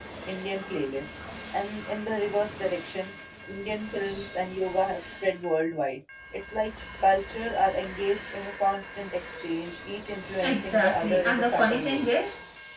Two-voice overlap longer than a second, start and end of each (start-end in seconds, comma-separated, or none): 10.4-12.1